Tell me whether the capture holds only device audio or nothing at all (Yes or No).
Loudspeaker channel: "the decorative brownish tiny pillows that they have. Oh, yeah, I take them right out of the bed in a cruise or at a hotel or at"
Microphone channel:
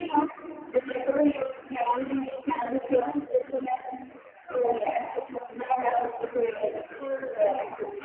Yes